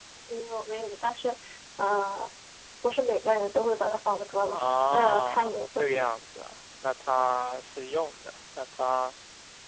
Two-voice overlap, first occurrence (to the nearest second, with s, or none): 4 s